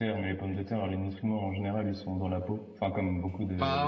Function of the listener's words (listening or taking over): taking over